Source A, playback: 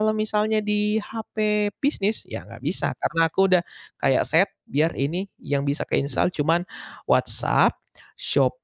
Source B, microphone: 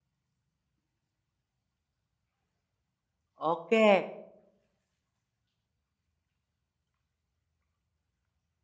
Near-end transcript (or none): Oke,